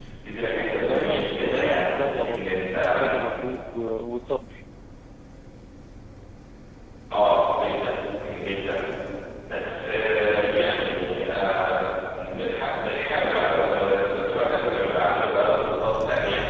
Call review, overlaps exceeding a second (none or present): present